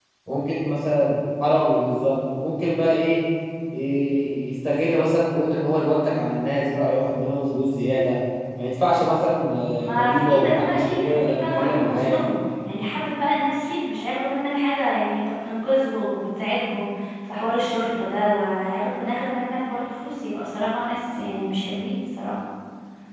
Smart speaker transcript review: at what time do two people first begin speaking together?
10 s

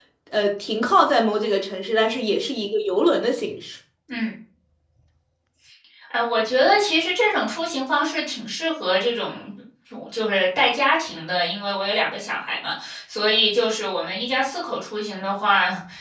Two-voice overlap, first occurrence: none

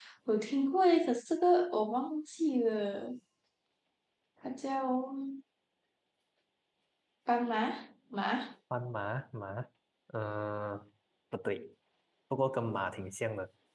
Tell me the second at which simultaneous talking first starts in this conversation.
none

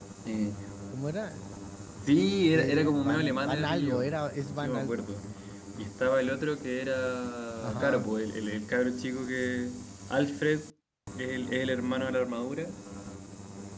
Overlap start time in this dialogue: 3 s

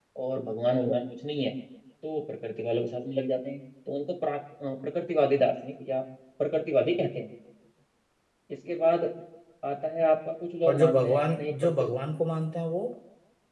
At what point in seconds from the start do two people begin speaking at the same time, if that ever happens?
11 s

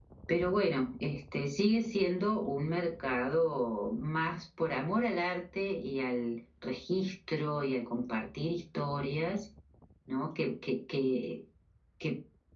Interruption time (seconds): none

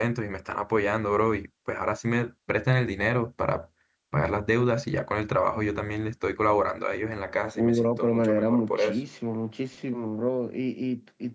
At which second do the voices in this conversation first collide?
8 s

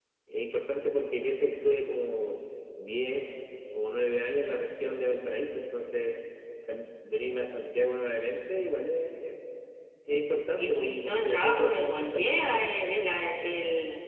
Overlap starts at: 11 s

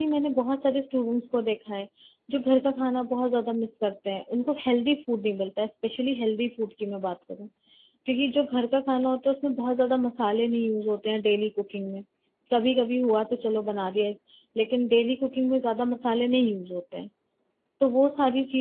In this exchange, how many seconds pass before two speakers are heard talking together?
none

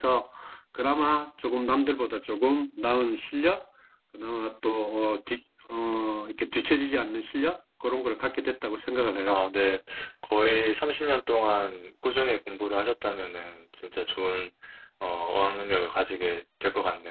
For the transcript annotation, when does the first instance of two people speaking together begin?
none

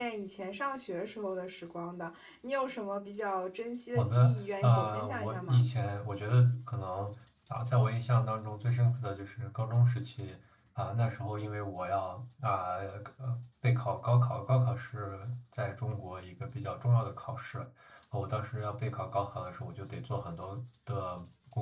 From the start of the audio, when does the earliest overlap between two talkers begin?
4 s

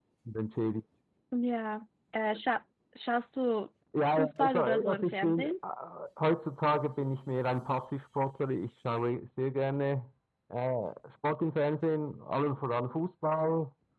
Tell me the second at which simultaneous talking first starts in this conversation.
4 s

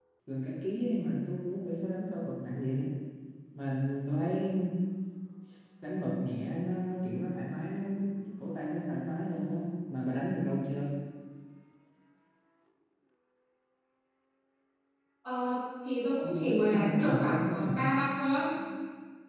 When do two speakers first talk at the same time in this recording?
16 s

